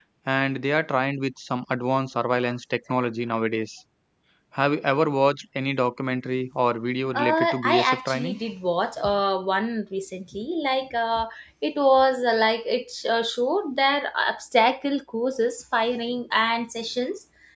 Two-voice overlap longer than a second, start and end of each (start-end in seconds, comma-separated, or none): 7.1-8.4